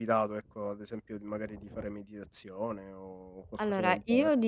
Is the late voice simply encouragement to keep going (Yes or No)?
No